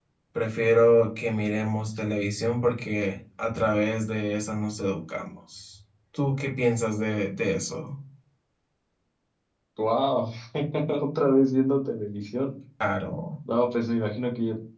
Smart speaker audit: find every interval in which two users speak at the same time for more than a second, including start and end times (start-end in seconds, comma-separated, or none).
none